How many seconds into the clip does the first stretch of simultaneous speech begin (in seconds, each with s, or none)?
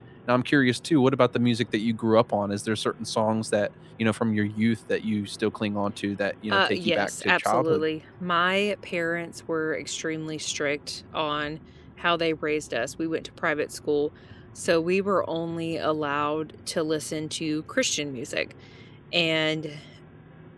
6.5 s